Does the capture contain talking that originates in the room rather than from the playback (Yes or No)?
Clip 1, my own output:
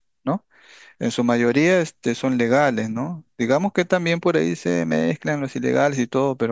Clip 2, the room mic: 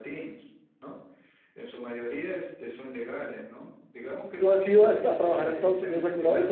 Yes